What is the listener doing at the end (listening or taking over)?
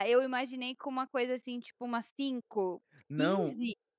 taking over